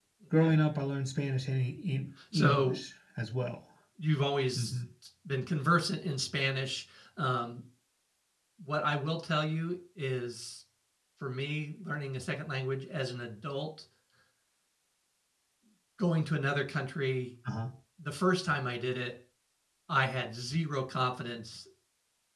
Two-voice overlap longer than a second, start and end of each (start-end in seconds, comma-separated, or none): none